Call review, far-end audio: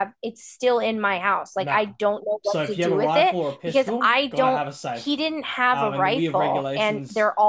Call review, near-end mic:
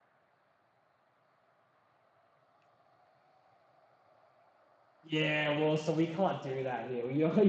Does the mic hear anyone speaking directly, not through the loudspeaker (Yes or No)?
Yes